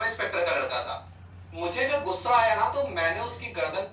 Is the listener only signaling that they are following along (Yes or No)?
Yes